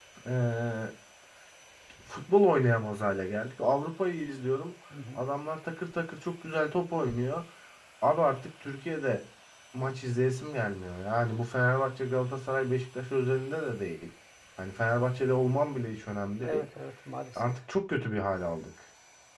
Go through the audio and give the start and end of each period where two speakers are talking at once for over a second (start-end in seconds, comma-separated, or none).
none